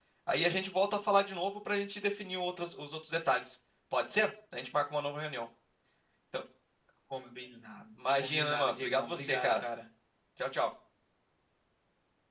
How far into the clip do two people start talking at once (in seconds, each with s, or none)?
8.0 s